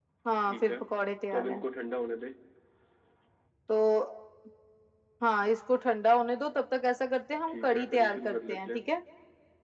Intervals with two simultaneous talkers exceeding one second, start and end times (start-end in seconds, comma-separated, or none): 7.5-9.0